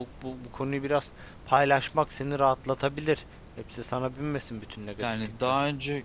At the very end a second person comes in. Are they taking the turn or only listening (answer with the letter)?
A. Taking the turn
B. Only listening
A